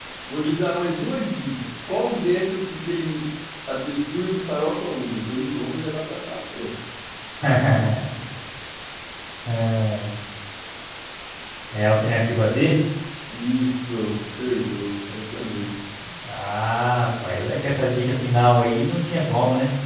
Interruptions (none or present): none